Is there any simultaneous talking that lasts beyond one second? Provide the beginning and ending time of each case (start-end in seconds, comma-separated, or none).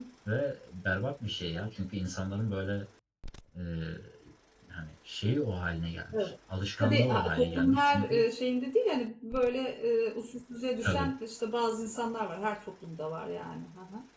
6.8-8.1